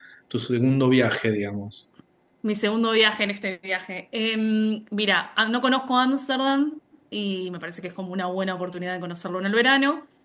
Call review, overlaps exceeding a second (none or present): none